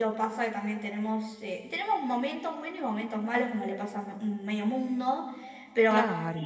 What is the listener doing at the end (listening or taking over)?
listening